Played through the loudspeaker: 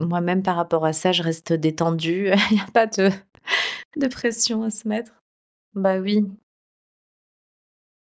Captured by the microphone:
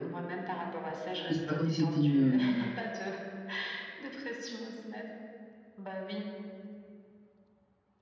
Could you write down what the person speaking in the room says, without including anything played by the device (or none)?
tu sais c'est pas comme si c'était une, hem,